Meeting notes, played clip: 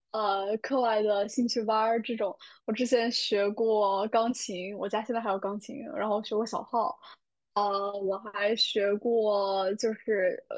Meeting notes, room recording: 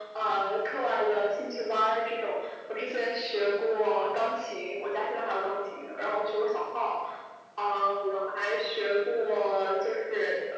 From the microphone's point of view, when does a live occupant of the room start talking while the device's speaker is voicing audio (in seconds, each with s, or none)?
none